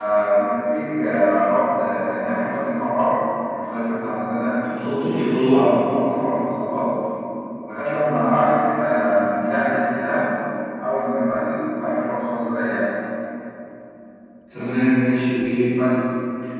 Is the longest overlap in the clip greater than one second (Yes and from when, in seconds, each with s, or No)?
No